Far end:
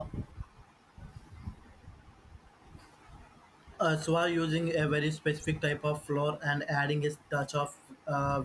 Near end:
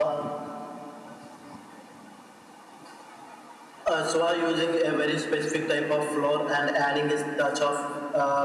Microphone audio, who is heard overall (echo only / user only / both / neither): echo only